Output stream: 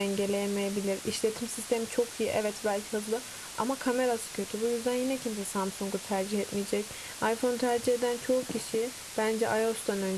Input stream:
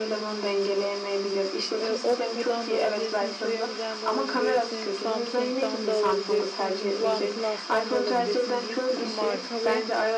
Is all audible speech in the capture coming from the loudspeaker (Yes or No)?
No